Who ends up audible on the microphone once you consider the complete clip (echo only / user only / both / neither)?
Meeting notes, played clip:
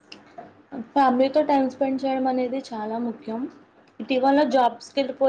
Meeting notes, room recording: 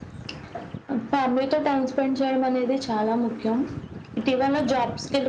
echo only